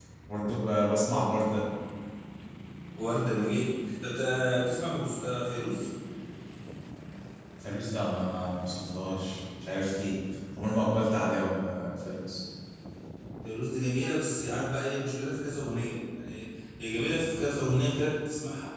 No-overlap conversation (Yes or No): Yes